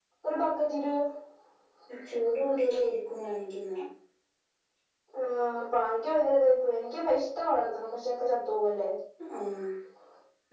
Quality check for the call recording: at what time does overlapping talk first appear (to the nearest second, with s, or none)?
none